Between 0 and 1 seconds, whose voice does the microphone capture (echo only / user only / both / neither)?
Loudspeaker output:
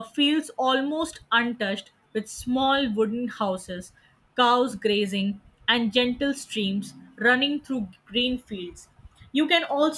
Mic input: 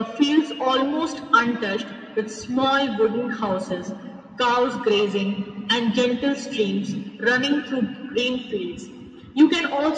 echo only